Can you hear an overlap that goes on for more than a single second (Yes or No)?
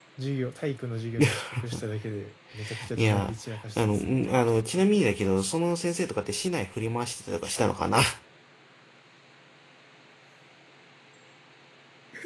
Yes